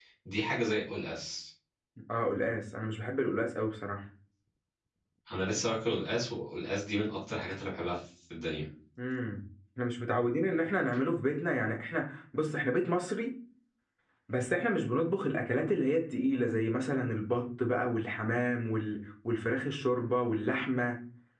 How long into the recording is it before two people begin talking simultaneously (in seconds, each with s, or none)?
none